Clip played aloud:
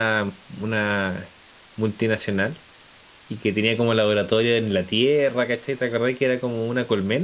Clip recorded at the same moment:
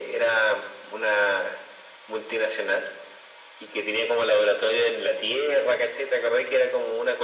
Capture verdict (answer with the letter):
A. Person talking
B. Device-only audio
B